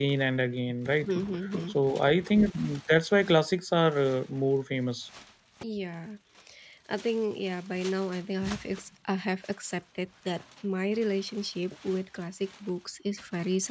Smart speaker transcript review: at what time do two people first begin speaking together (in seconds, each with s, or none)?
none